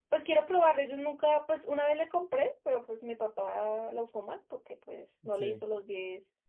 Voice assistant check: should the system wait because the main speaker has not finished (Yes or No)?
Yes